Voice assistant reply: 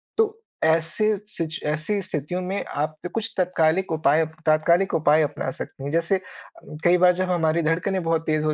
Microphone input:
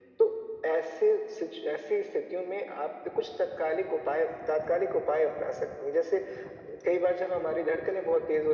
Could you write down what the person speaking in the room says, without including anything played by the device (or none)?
none